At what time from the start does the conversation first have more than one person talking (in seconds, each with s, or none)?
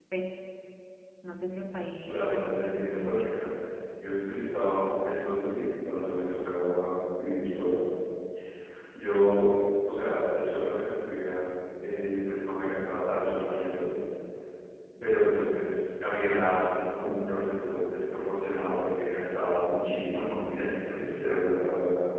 2.0 s